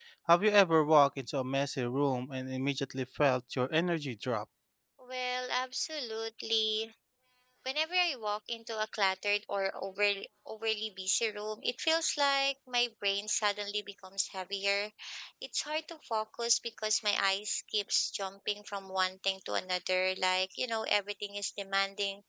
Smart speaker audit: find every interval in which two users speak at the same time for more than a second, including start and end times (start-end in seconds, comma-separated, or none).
none